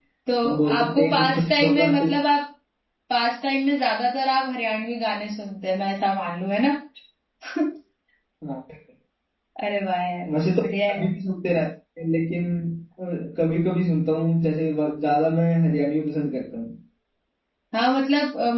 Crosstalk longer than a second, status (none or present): present